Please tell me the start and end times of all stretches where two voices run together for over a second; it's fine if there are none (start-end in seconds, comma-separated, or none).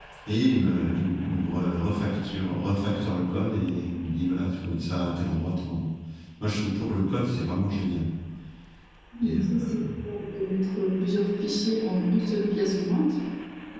none